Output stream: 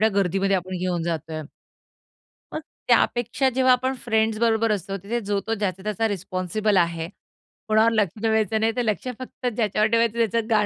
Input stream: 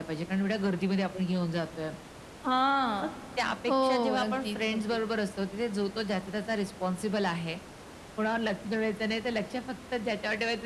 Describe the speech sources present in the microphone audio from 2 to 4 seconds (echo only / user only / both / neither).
both